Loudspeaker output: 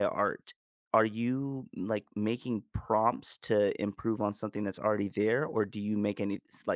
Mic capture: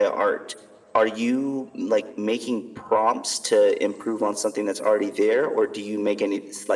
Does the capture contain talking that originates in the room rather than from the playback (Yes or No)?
No